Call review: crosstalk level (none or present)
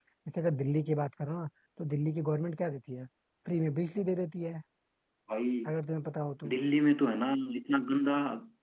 none